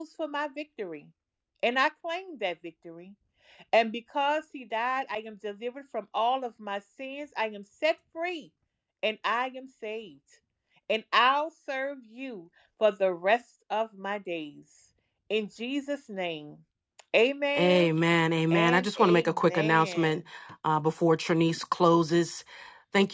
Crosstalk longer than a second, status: present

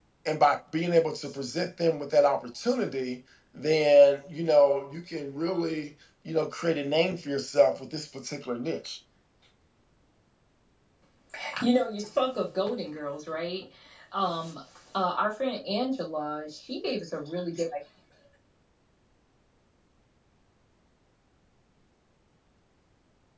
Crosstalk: none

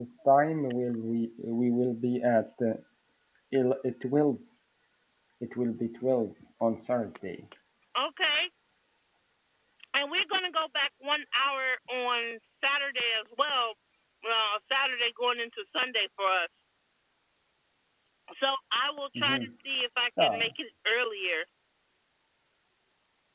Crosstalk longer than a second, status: none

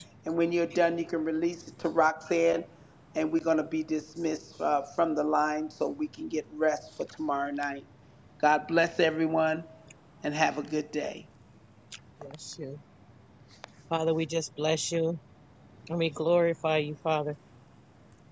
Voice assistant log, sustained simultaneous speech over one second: none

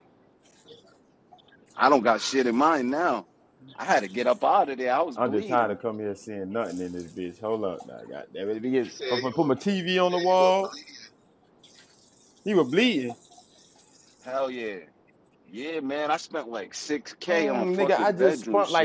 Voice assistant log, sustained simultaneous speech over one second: present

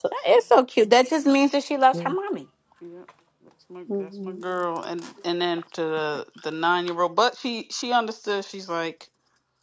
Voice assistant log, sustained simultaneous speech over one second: none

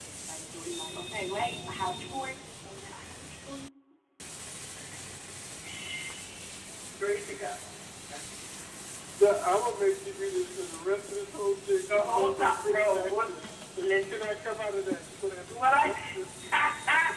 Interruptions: present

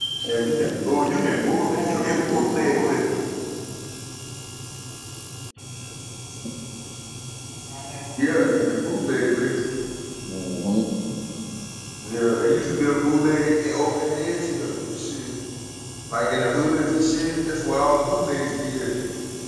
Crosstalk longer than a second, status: present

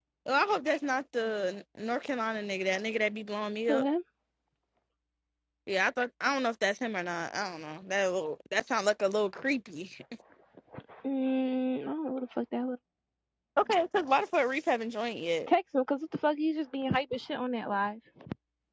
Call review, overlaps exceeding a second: none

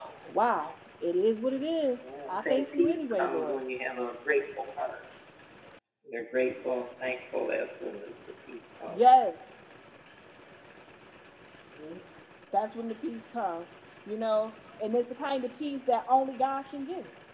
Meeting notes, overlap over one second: present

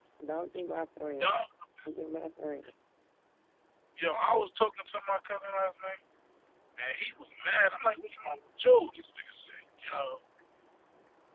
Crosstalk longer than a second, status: none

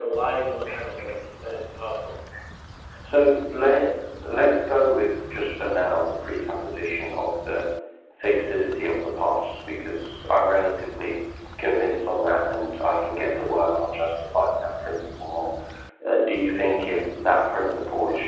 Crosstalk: none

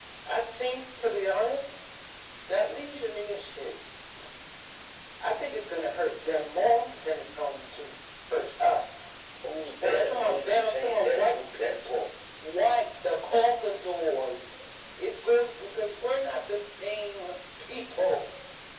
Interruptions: present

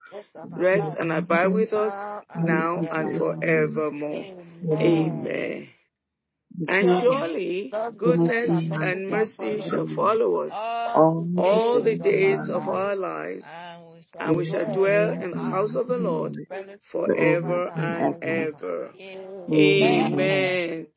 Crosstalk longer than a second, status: present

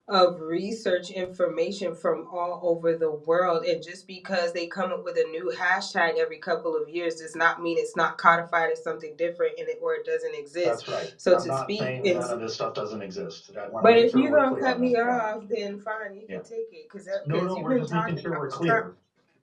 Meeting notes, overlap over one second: present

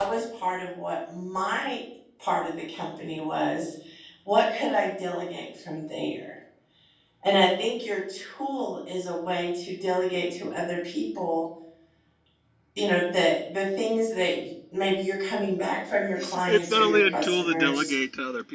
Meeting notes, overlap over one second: present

